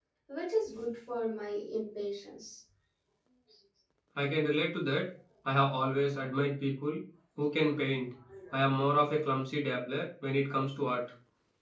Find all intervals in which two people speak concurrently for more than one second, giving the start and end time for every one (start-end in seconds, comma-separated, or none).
none